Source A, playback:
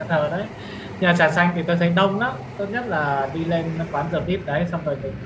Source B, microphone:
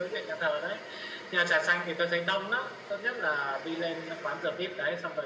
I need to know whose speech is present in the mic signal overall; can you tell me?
echo only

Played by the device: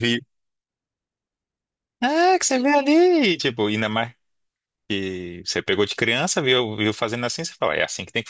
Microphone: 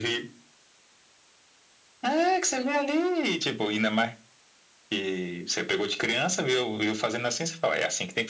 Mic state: echo only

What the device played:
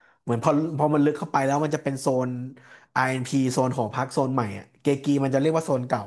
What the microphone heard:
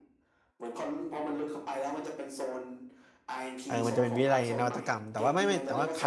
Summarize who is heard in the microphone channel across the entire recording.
both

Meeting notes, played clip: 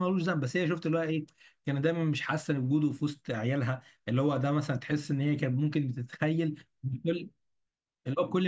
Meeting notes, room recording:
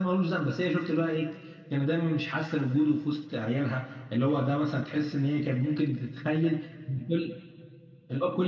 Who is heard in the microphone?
echo only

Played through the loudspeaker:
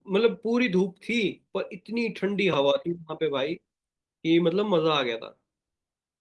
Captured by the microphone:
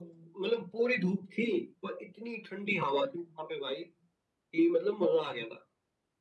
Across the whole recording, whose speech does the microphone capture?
echo only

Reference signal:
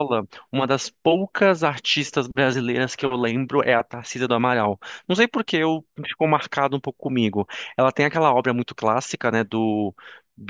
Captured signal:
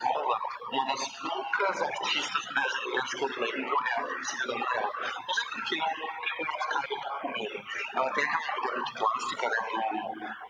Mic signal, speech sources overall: echo only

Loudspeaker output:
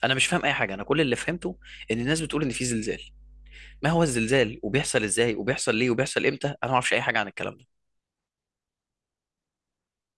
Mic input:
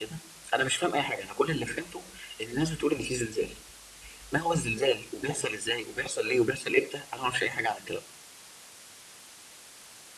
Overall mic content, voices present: echo only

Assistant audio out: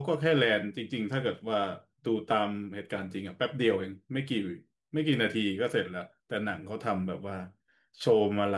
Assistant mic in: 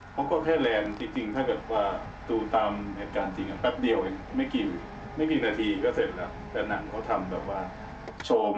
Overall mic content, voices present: echo only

